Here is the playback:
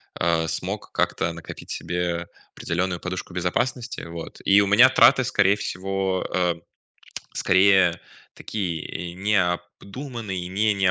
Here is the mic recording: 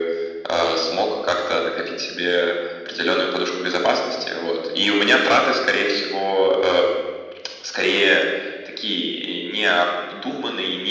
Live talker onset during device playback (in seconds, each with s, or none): none